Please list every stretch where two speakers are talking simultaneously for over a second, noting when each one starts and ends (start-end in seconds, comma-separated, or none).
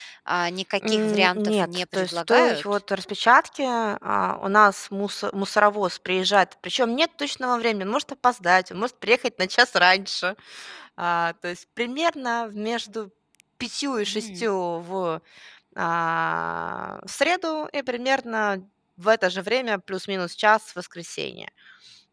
0.9-2.8